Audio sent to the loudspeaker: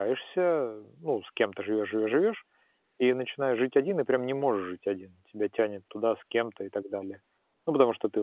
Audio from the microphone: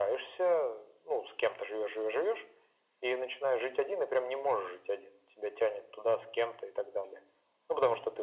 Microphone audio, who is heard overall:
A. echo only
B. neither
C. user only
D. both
A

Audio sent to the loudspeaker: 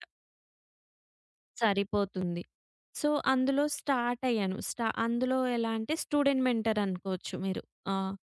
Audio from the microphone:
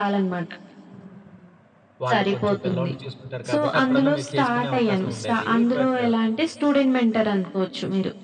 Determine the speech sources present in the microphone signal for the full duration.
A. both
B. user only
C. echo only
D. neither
A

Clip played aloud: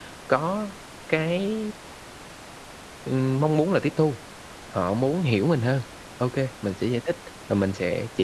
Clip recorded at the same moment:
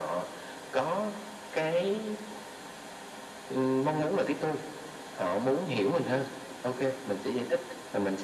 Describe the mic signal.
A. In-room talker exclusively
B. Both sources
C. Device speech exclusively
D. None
C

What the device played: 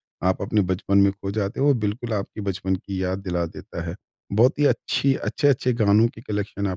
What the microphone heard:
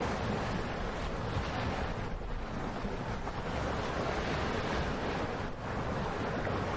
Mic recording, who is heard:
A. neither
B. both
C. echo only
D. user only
A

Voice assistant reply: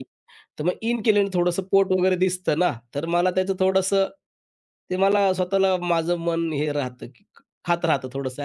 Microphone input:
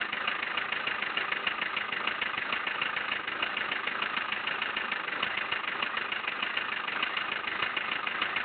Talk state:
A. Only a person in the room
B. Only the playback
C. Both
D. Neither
D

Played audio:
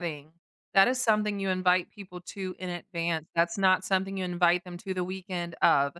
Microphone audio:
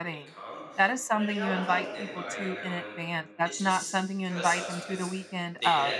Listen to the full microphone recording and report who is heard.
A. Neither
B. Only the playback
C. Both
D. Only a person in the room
C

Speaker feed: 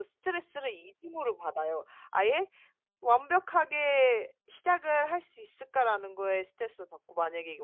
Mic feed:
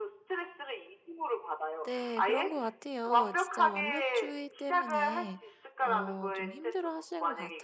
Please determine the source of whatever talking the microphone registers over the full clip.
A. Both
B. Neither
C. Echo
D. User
A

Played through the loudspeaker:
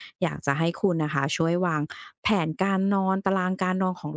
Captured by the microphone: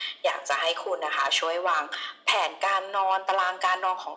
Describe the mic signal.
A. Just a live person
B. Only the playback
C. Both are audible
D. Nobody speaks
B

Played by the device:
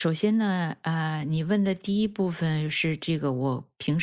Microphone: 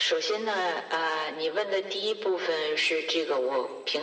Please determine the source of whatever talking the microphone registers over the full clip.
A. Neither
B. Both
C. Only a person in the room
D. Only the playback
D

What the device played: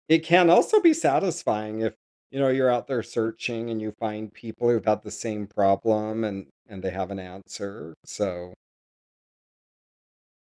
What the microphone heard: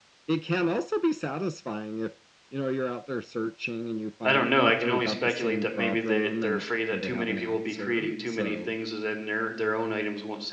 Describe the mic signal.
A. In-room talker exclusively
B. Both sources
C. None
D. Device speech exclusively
B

